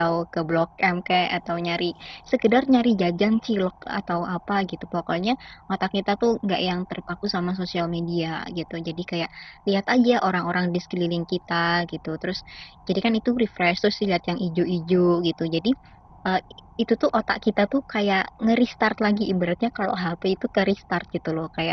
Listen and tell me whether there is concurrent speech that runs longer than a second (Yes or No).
No